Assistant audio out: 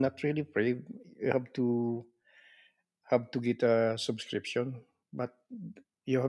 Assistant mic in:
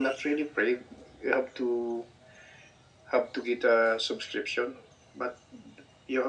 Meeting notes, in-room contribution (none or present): none